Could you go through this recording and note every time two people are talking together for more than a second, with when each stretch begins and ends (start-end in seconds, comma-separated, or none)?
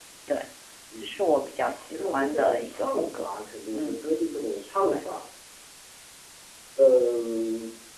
1.9-3.3